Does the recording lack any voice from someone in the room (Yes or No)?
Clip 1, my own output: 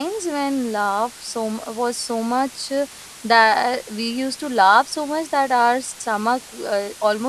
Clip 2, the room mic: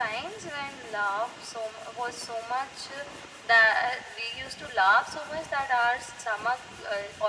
Yes